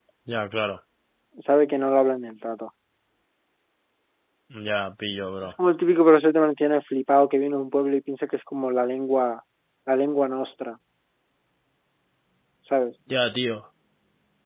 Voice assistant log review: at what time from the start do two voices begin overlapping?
none

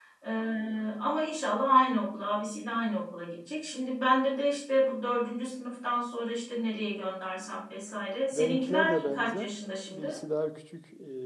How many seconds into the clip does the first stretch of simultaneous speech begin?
8.3 s

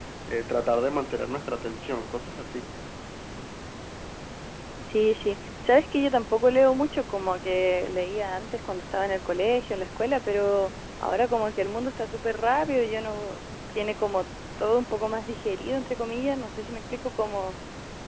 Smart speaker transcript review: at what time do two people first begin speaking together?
none

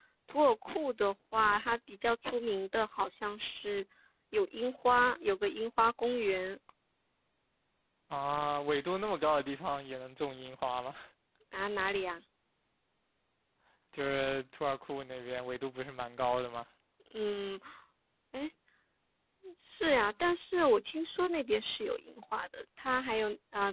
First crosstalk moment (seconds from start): none

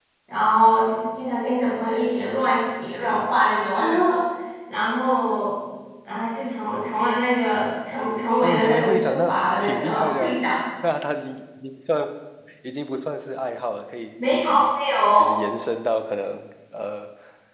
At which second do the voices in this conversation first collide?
8.4 s

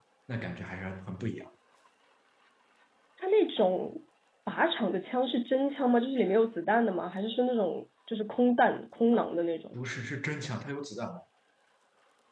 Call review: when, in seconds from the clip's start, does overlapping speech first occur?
none

